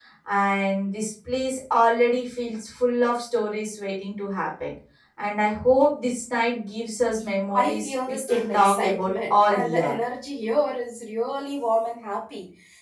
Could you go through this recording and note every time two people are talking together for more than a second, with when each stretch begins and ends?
7.5-9.9

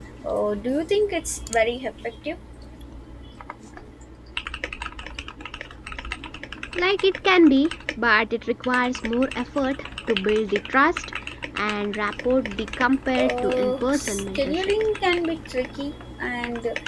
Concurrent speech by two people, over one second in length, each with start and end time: 13.2-14.7

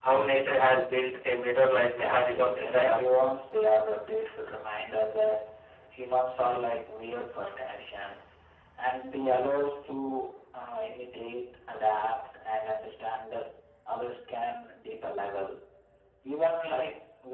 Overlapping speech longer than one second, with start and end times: 1.7-3.0

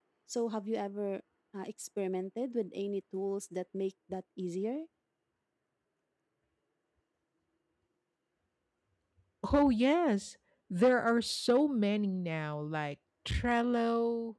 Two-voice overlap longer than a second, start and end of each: none

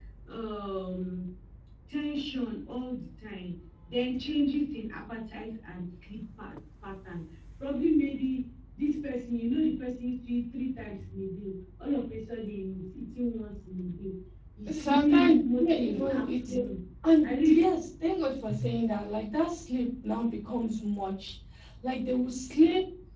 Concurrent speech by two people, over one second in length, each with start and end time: 14.7-16.6

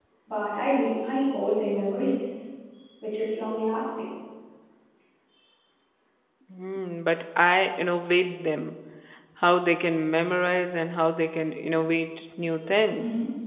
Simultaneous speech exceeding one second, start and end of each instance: none

